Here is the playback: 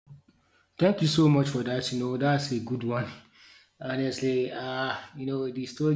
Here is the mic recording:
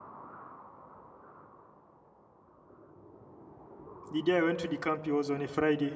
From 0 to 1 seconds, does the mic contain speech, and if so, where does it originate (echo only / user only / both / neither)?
neither